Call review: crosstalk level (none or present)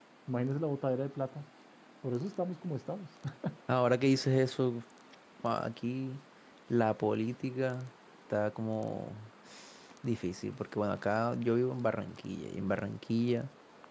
none